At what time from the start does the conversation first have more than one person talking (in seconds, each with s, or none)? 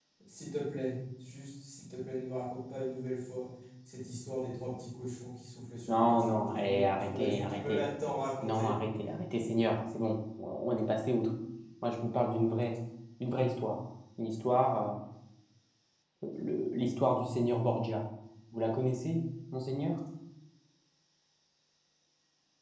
5.9 s